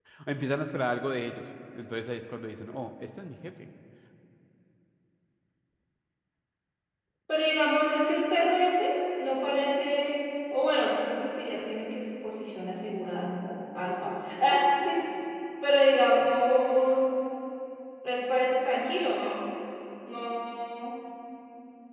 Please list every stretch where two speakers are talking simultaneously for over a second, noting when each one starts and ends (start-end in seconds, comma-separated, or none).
none